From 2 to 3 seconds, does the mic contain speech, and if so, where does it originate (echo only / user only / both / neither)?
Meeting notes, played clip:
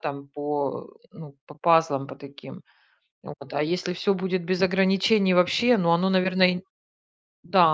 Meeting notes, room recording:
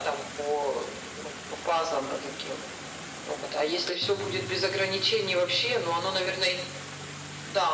echo only